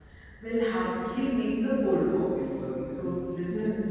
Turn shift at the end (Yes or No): No